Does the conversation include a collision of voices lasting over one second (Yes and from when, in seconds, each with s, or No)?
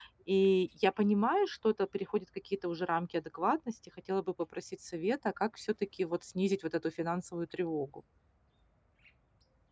No